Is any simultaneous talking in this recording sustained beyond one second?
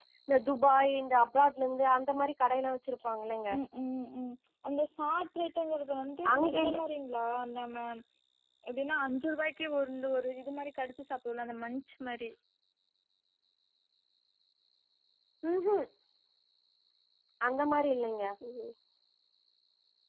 No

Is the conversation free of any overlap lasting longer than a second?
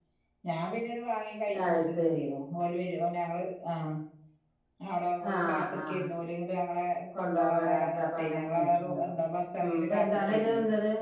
No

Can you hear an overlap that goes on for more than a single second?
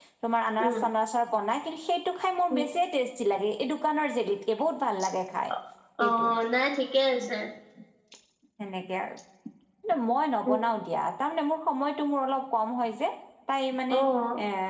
No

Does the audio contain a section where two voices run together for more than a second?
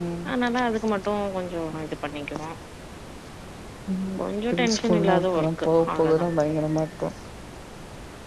Yes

